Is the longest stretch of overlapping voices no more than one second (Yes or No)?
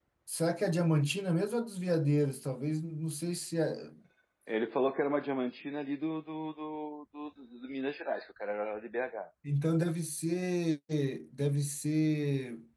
Yes